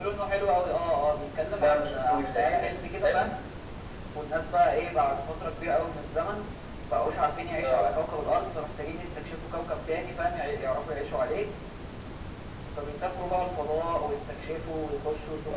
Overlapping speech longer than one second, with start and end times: 1.6-3.3

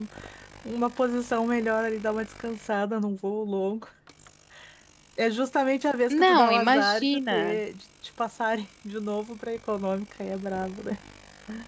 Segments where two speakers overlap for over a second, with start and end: 6.1-7.6

